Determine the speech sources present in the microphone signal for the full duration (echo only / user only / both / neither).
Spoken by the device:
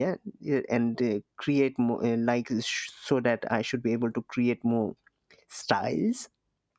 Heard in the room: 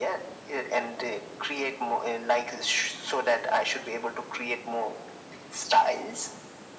echo only